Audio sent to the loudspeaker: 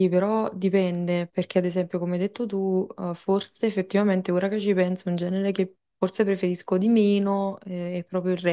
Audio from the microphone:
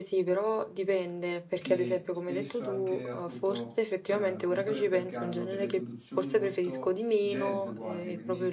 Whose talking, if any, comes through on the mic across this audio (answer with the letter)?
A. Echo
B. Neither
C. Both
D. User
C